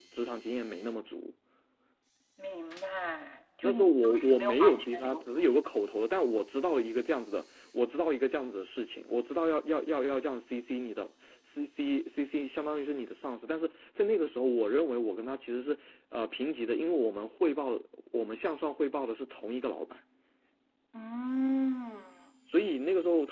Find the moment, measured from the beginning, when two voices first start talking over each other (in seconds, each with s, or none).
3.6 s